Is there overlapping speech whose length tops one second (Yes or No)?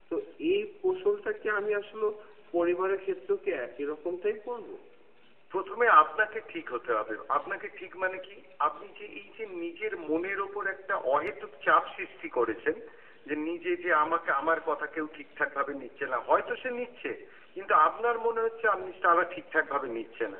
No